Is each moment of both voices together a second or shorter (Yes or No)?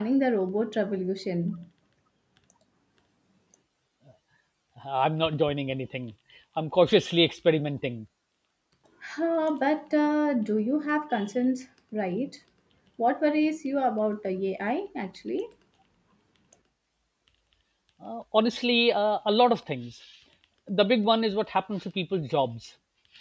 Yes